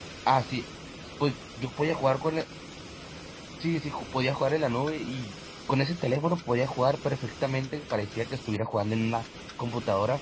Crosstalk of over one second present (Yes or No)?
No